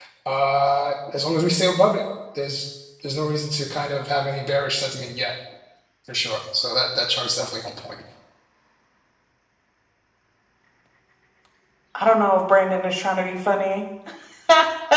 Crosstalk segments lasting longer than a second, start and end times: none

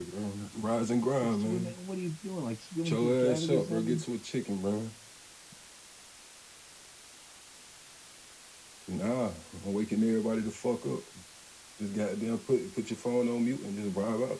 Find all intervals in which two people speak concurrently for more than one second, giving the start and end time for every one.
2.8-4.0

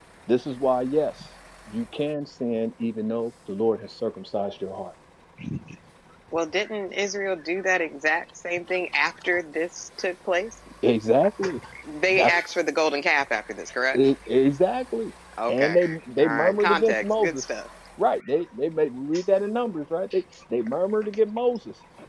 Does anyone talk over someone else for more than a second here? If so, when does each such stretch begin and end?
16.2-17.4

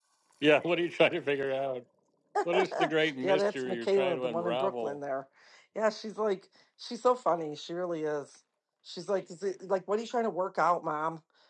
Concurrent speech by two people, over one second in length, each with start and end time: 3.2-5.0

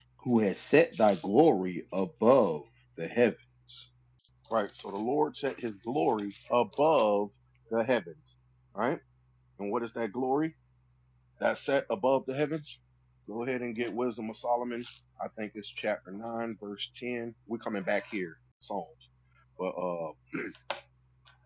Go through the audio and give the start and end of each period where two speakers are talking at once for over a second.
none

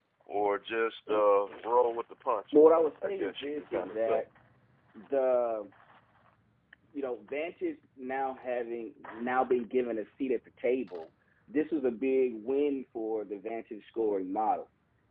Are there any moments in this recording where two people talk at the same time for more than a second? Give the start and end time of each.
2.6-4.2

